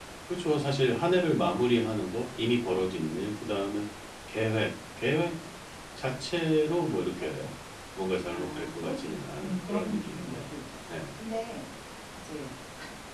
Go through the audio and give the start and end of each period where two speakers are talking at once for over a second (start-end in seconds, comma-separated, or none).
8.3-10.4